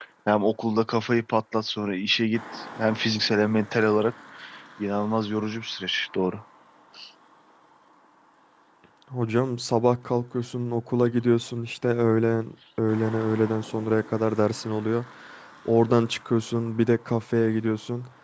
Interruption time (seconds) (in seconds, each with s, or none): none